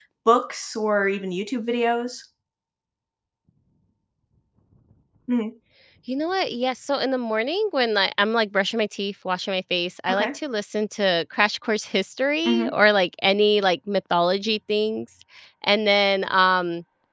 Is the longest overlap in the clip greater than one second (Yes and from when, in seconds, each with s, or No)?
No